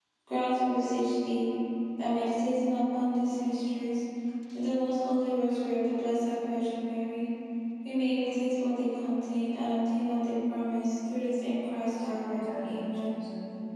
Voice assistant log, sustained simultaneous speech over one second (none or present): present